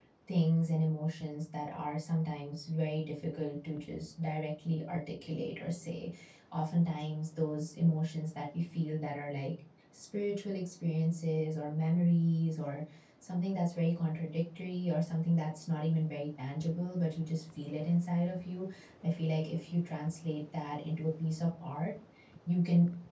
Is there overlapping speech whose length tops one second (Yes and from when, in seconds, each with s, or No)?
No